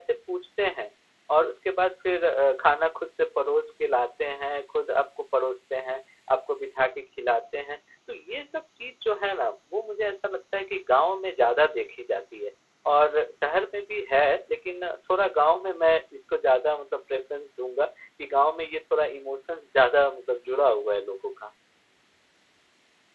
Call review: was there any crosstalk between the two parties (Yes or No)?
No